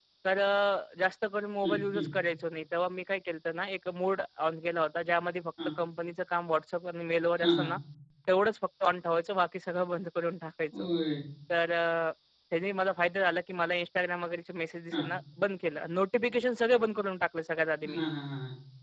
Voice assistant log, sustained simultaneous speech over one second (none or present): none